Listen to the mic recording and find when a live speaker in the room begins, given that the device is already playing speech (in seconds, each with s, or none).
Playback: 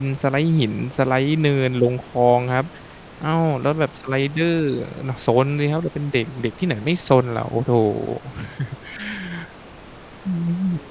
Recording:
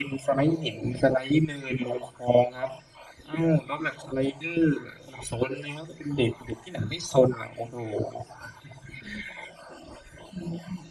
none